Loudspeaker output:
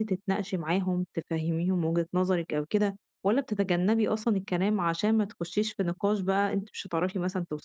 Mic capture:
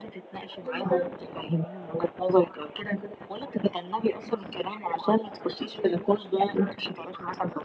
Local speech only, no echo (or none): بالضبط،